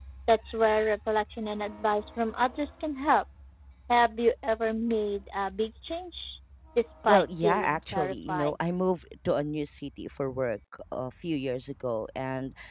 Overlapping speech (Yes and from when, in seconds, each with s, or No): Yes, from 7.1 s